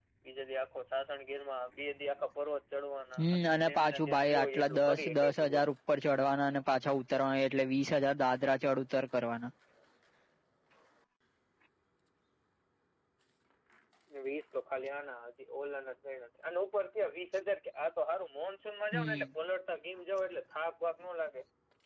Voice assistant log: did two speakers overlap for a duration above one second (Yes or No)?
Yes